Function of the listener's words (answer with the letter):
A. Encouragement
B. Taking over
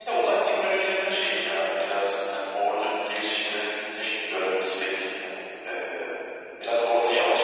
B